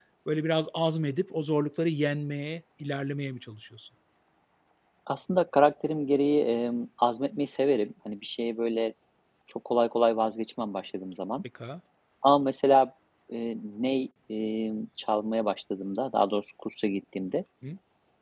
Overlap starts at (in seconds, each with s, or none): none